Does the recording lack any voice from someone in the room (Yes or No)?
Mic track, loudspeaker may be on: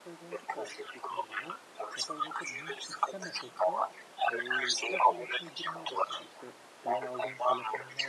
No